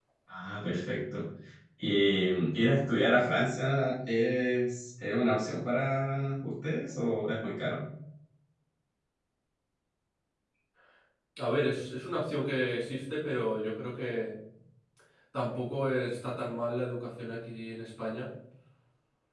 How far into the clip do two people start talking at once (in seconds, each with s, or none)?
none